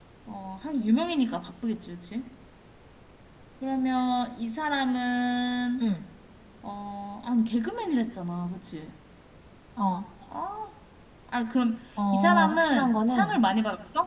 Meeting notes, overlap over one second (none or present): present